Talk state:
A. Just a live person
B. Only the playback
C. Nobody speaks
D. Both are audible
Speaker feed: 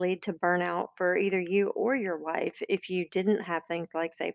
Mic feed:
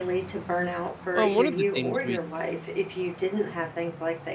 D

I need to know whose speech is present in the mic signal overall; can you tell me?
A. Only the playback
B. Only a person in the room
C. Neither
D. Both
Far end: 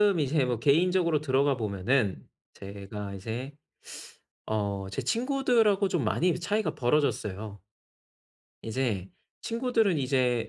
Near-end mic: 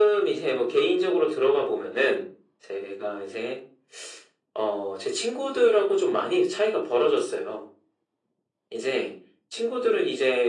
A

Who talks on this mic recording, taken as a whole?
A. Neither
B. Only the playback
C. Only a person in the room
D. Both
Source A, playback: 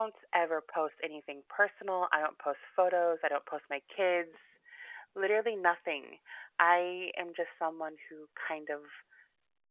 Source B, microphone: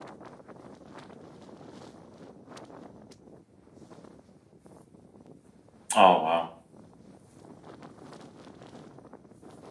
C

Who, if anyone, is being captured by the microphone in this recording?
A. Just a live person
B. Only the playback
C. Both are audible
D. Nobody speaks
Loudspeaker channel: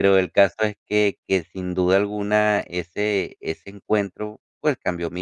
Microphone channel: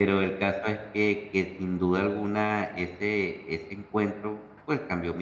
B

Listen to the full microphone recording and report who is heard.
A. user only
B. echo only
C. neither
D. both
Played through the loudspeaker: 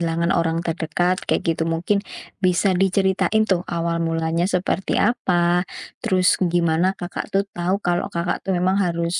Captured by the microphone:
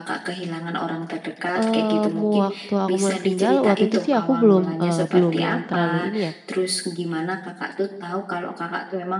D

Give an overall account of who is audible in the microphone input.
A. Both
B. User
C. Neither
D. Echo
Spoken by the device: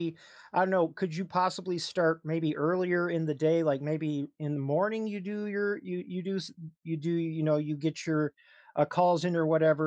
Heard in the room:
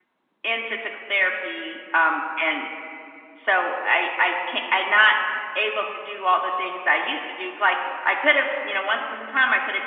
B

